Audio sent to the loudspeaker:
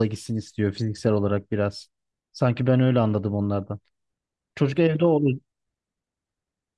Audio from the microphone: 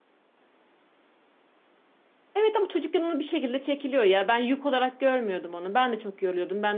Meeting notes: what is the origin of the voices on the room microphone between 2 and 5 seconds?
user only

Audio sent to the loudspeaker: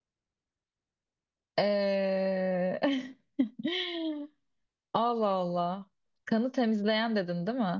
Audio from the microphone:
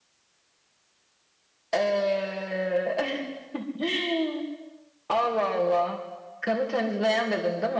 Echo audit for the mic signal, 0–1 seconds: neither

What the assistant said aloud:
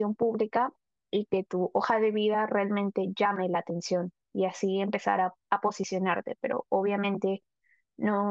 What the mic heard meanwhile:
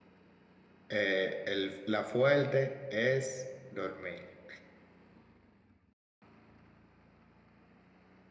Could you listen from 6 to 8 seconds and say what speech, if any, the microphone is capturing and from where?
neither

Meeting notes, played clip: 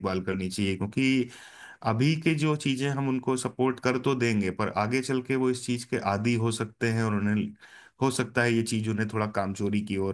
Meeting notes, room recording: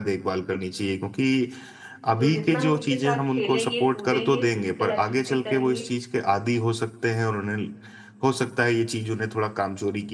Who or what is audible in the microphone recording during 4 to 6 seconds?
both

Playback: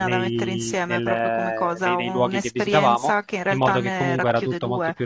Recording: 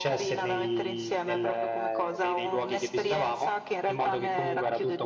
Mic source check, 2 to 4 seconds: echo only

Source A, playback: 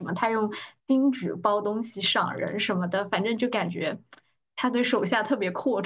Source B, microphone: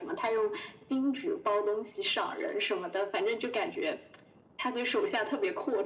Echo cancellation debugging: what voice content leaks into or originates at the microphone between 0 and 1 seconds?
echo only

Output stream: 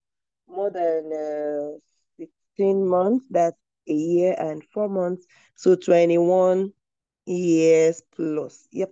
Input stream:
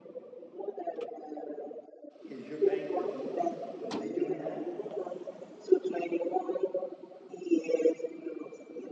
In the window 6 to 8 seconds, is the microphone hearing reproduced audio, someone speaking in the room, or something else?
echo only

